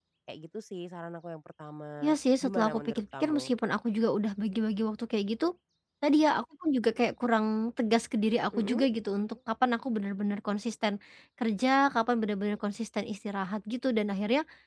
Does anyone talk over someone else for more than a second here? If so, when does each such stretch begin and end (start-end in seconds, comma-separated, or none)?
2.0-3.5